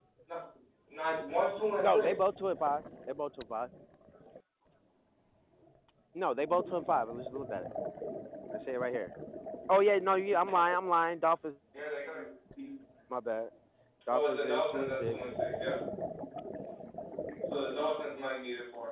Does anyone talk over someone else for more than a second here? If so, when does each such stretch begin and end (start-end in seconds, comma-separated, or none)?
14.1-15.3